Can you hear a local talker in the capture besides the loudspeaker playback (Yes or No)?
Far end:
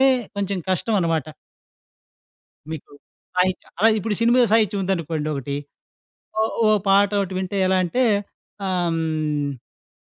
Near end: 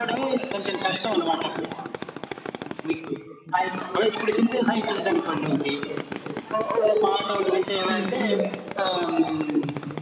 Yes